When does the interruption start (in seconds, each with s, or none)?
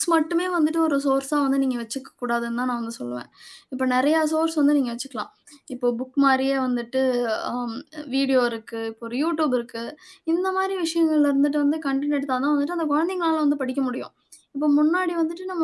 none